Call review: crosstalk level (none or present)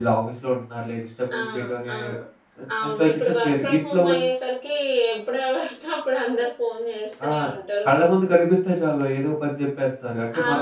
present